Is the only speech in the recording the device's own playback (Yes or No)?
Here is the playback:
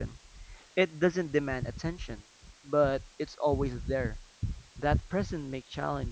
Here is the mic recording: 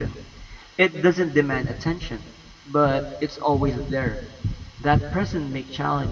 Yes